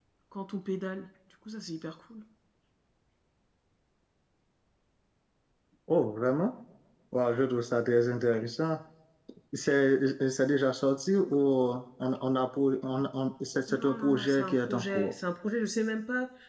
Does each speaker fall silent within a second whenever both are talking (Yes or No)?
No